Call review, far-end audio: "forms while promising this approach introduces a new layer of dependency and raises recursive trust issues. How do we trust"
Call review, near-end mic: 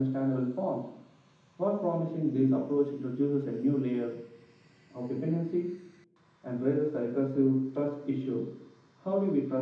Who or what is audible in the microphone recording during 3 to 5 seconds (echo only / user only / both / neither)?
echo only